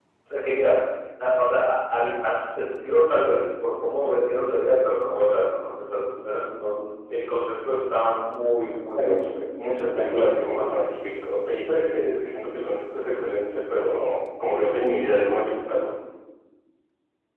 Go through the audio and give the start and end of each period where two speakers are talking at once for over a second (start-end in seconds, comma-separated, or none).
8.9-10.8